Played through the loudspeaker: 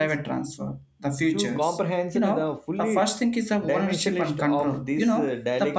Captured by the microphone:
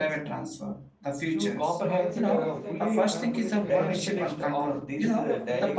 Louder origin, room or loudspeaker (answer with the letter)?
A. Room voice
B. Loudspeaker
B